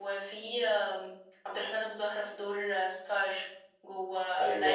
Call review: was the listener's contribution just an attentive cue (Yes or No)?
Yes